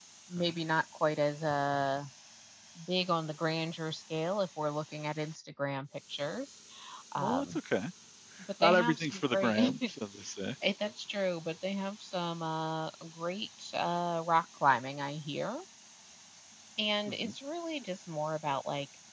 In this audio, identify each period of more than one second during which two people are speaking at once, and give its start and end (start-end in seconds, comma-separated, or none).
8.6-9.9